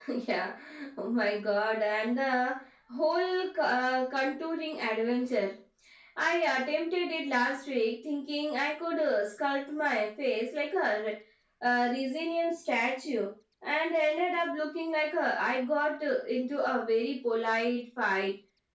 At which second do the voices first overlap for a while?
none

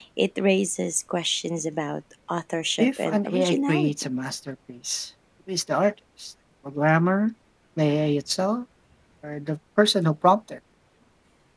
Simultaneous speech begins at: 3 s

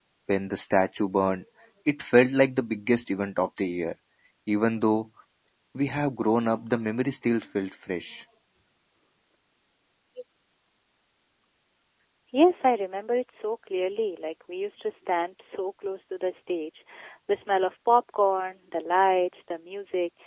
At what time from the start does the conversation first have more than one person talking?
none

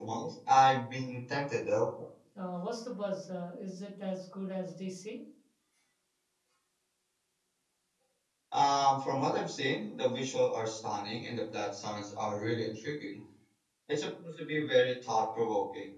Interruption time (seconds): none

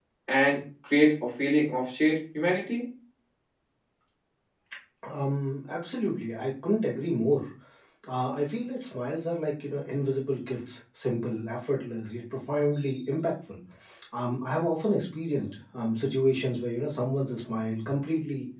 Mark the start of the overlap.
none

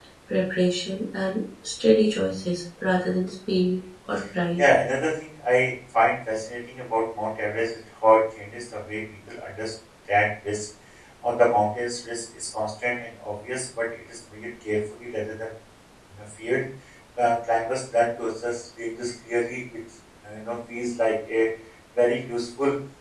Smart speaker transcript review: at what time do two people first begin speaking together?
none

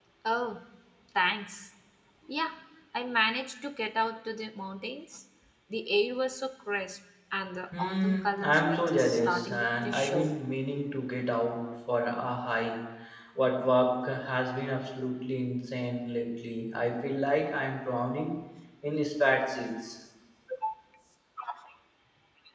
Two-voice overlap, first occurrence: 8 s

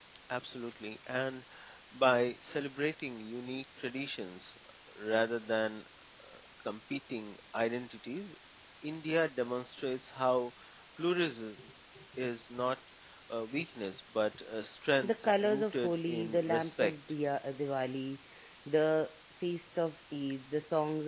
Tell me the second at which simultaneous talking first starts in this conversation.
15 s

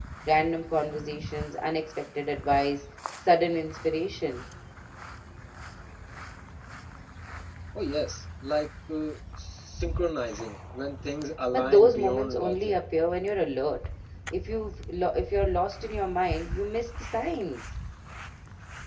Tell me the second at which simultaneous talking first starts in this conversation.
12 s

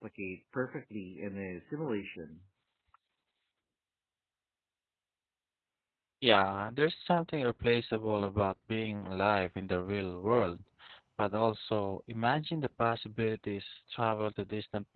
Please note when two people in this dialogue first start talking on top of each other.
none

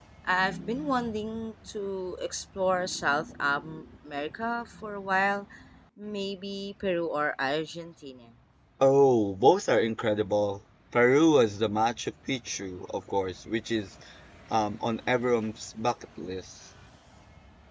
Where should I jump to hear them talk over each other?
none

